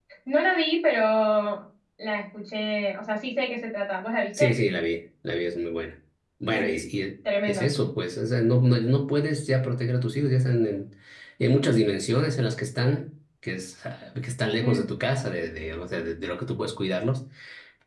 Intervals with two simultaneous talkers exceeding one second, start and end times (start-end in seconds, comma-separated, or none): none